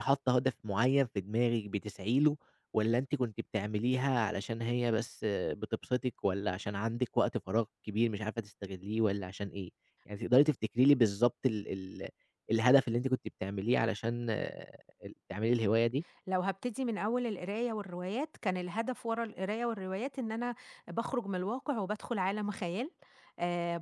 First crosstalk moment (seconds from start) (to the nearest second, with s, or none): none